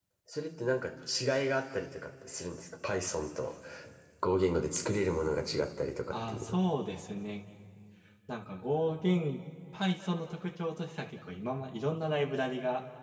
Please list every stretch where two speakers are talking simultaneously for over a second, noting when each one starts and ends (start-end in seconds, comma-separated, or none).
none